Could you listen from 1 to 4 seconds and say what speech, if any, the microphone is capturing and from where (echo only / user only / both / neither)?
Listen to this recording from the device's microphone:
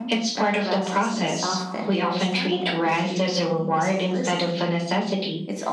both